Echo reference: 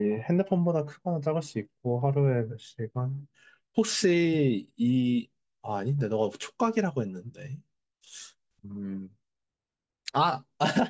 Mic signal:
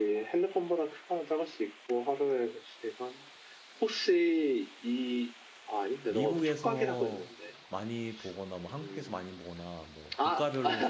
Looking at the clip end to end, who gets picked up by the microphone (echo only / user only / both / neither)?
both